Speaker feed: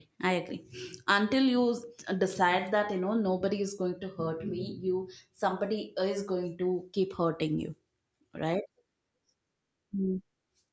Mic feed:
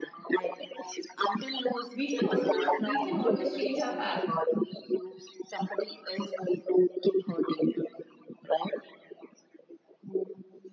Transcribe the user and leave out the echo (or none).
We can always we can always change our path.